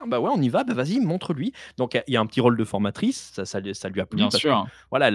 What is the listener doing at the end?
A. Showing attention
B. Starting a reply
A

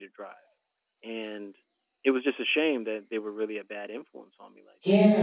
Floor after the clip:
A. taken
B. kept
A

